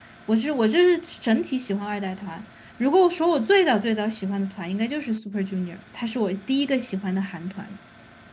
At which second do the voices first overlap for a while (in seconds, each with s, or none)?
none